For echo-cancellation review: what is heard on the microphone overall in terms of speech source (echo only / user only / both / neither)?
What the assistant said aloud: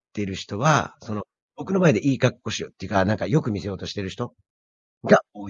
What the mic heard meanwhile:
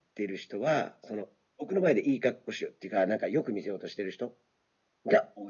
echo only